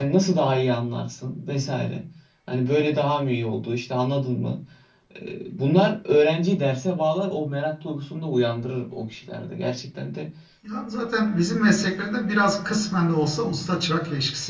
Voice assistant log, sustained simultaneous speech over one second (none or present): none